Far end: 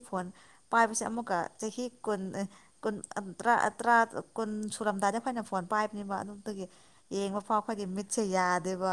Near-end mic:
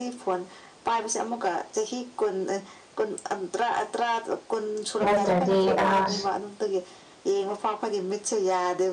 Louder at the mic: user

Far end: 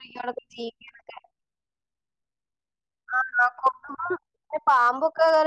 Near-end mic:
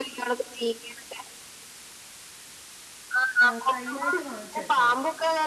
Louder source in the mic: echo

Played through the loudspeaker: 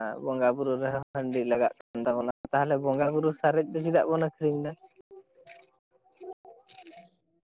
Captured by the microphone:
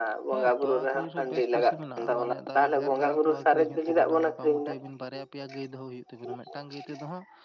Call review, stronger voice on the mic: echo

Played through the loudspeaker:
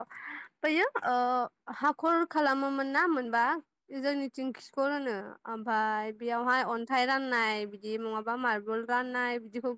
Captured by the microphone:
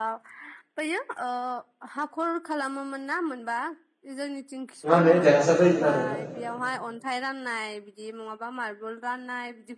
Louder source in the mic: user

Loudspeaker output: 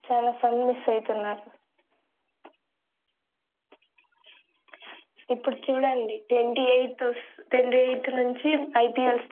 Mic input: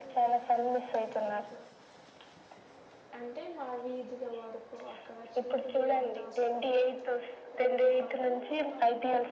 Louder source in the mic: echo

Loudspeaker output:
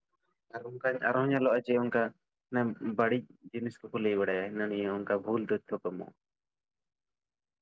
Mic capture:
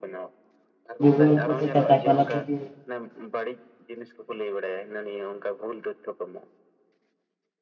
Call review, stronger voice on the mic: user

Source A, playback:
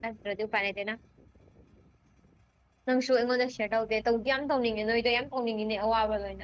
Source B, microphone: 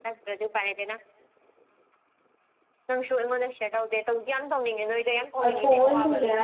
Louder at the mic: user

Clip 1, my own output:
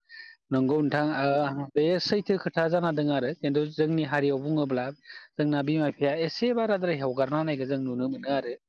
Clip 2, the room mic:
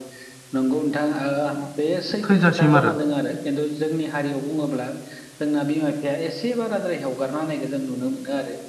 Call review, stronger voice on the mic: user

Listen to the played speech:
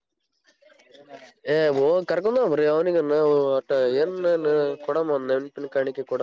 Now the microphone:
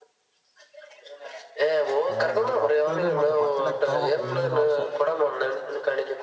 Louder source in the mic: echo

